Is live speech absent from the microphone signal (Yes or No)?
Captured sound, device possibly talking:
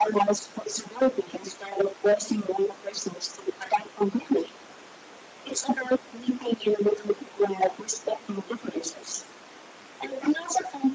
Yes